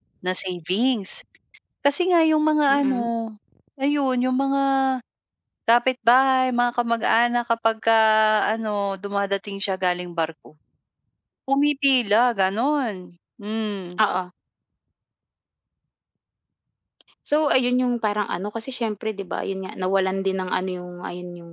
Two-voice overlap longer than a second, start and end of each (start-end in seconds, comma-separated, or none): none